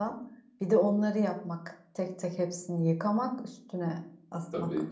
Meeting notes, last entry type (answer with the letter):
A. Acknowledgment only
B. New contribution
B